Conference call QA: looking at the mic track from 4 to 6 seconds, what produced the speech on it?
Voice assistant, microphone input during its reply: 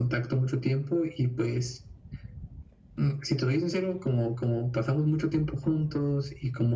echo only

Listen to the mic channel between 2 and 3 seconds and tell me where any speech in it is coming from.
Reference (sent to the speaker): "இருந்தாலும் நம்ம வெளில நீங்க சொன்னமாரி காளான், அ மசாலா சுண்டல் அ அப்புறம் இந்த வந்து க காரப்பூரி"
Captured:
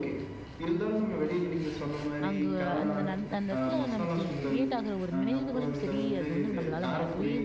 both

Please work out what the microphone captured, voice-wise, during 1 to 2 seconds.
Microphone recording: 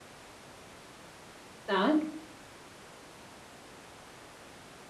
user only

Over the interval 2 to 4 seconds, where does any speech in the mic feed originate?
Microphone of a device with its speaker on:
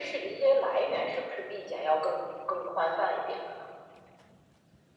echo only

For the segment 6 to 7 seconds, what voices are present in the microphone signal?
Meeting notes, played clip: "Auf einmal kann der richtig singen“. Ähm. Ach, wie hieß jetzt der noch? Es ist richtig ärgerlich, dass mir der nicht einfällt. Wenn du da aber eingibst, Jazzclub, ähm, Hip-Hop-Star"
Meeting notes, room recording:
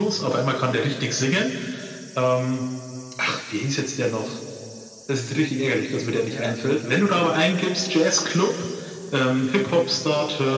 both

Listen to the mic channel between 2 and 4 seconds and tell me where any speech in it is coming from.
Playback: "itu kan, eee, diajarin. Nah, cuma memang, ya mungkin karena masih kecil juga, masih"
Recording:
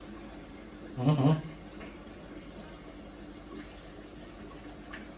neither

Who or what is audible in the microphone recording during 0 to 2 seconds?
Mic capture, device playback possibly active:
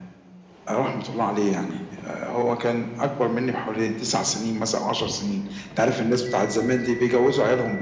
echo only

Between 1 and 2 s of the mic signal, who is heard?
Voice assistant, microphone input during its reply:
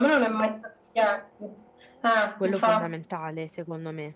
echo only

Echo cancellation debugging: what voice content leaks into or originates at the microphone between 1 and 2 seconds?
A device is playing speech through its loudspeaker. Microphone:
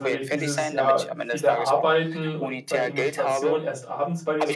both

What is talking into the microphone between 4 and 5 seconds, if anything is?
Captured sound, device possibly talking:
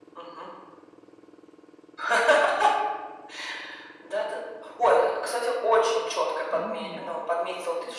echo only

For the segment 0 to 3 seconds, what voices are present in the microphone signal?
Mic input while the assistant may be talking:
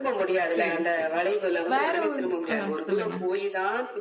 both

